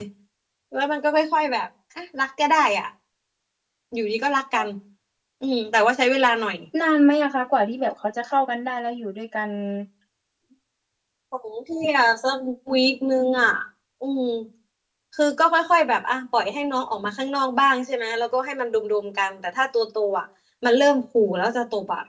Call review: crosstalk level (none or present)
none